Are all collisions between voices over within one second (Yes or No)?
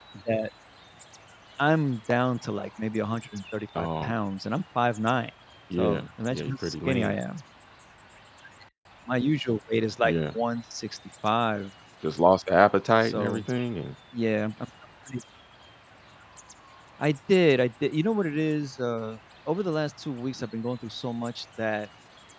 No